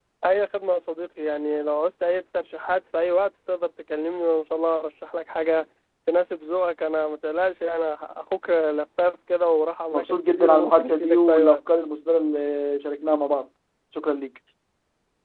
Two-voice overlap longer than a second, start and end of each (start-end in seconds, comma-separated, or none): 9.9-11.6